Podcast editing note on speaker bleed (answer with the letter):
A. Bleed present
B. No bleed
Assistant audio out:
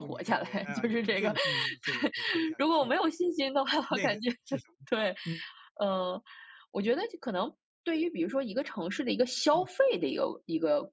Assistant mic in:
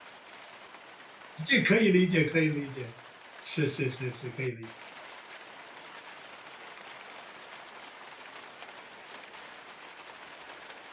B